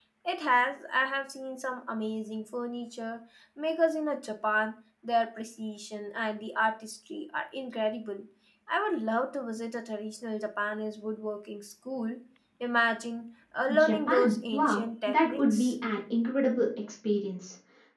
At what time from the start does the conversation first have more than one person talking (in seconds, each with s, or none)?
13.7 s